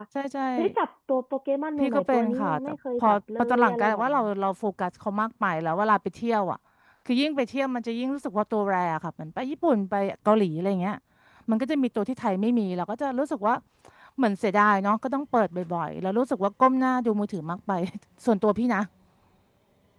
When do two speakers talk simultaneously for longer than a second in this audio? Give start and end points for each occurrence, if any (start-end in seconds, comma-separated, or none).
1.8-4.3